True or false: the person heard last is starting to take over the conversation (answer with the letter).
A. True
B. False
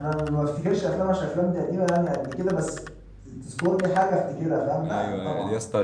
A